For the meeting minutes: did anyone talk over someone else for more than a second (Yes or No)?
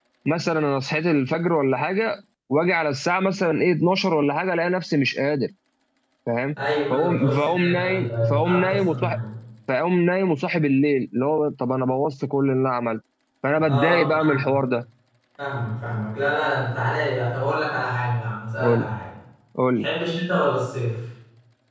Yes